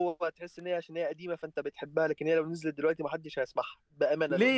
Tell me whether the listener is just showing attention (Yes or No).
No